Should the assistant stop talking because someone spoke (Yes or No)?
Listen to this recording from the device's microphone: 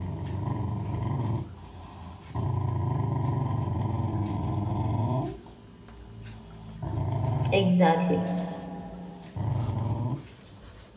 Yes